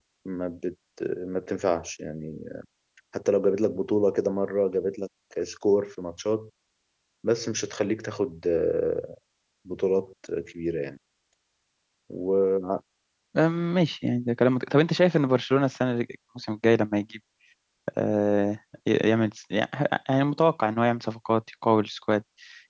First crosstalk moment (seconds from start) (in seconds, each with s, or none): none